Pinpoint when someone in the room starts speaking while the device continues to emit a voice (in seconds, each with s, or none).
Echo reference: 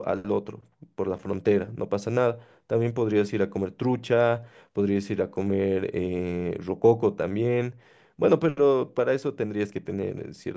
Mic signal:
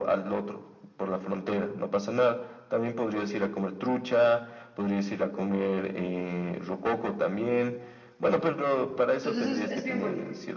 9.2 s